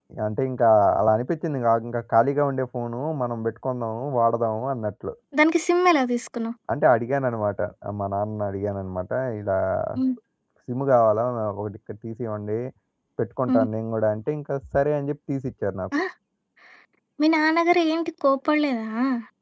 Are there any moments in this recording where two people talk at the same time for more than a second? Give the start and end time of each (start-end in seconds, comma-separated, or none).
none